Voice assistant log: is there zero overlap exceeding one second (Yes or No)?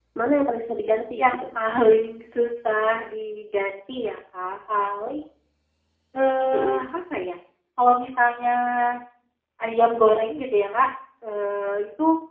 Yes